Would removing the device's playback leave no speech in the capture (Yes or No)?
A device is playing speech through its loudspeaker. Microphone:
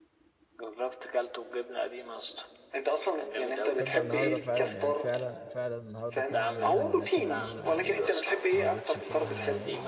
No